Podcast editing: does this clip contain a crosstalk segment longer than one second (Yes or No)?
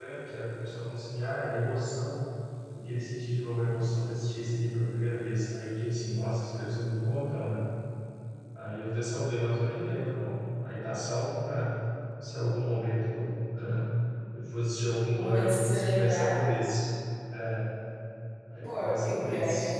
Yes